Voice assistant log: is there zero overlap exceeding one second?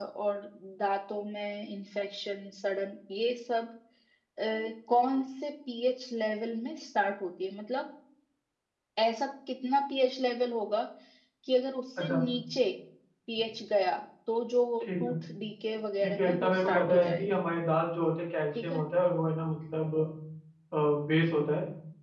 No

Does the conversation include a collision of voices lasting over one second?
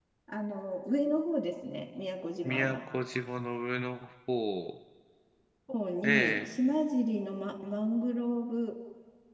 No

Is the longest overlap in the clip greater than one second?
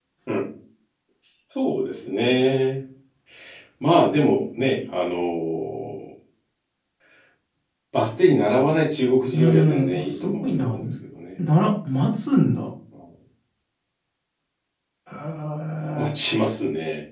Yes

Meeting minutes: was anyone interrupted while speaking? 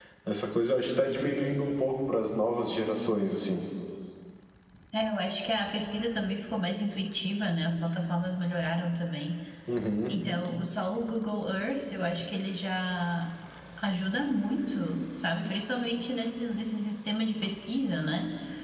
No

